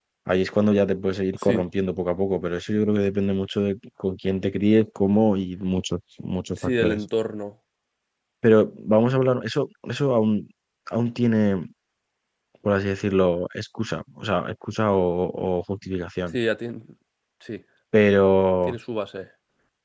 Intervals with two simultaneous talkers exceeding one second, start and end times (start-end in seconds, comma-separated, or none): none